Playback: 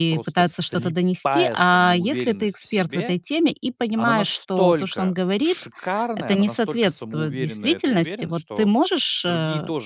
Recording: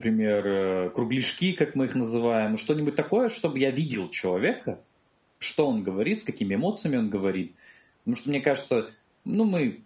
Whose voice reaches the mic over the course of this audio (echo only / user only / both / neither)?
user only